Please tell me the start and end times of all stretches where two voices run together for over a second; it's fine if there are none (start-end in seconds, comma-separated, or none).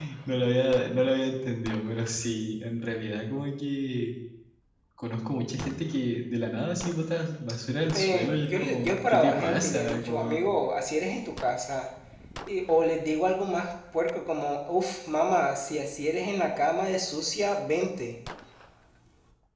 7.9-10.4